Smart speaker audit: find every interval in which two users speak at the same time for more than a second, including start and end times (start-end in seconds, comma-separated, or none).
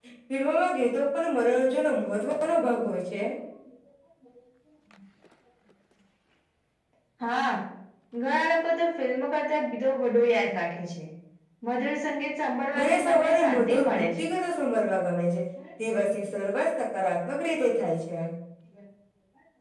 12.8-14.3